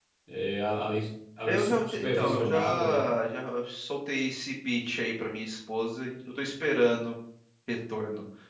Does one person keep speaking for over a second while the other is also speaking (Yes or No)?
Yes